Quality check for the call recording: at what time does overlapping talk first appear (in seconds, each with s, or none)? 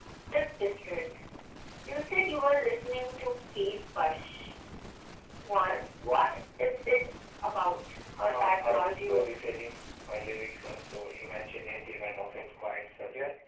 8.2 s